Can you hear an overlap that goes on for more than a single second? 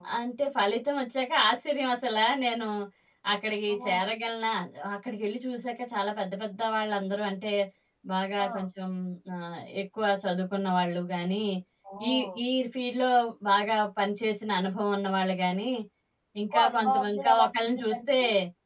Yes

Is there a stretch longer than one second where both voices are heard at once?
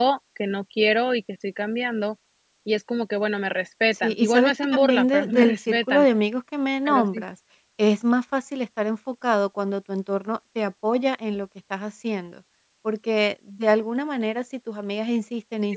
Yes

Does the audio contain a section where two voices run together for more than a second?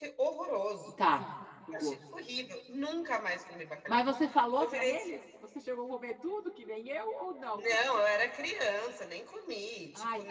No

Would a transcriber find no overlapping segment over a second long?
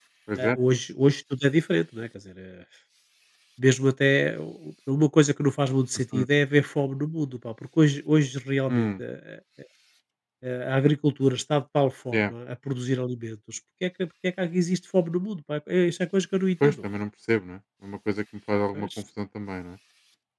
Yes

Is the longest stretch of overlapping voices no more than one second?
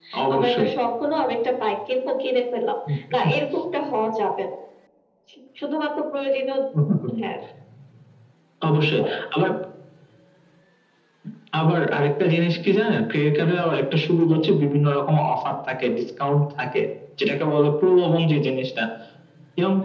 Yes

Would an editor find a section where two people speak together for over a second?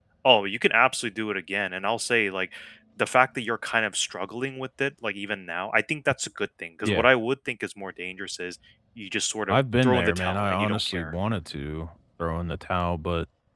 Yes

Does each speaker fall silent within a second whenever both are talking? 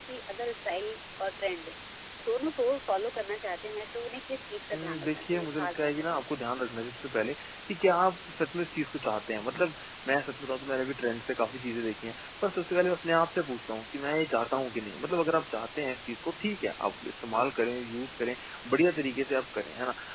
No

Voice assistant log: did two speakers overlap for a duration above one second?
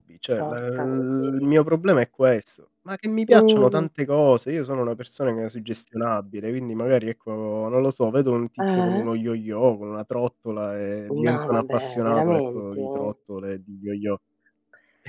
Yes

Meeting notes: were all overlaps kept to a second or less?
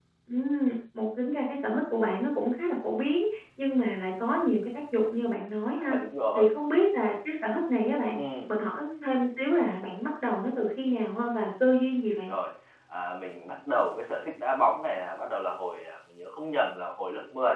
Yes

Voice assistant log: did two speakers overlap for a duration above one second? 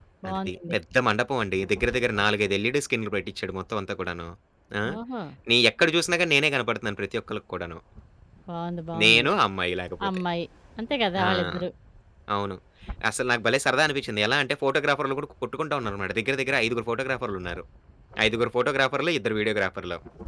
No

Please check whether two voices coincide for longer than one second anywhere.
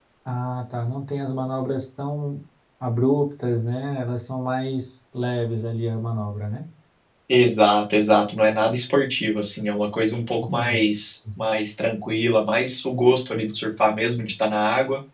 No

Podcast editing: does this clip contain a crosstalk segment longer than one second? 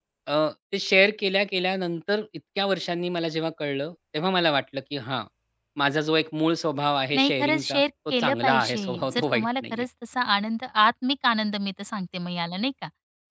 Yes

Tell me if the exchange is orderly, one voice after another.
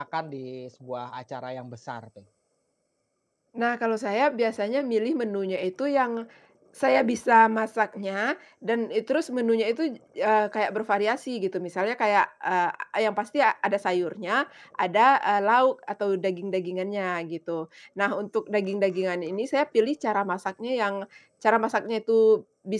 Yes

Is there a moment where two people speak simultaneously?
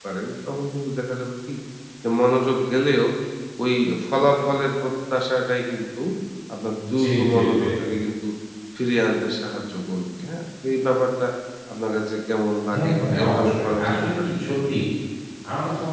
Yes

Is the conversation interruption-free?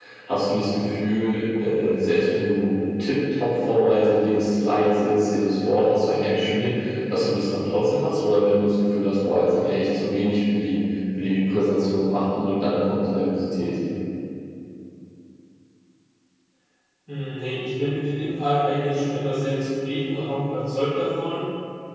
Yes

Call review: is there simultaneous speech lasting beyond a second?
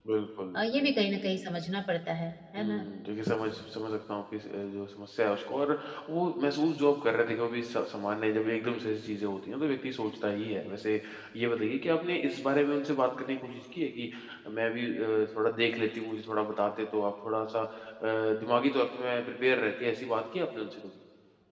No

